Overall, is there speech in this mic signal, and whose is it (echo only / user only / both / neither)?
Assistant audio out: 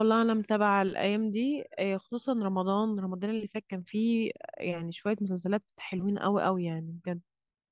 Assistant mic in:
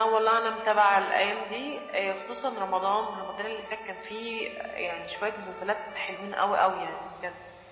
echo only